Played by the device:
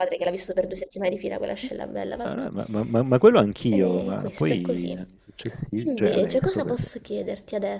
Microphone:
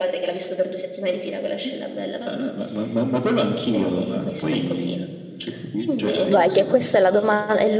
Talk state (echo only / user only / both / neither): both